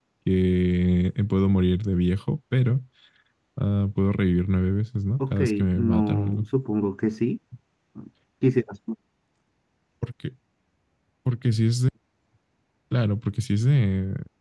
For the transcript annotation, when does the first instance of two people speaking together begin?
5.2 s

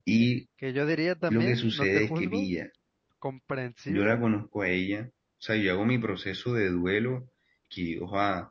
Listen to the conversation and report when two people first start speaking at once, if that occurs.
1.3 s

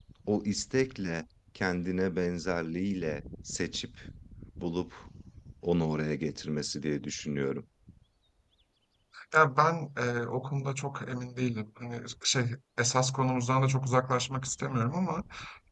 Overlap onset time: none

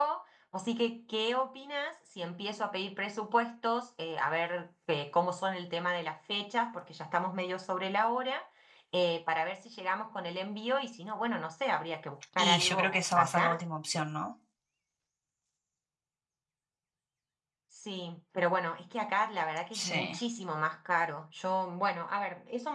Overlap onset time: 12.4 s

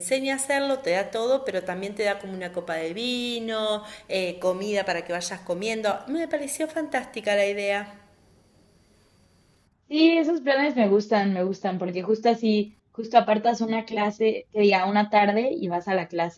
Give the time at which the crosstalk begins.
none

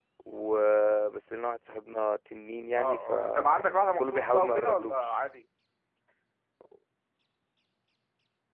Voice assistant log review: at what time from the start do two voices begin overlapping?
2.8 s

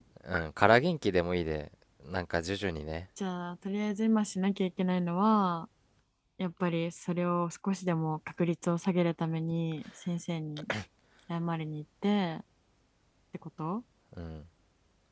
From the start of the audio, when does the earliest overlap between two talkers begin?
none

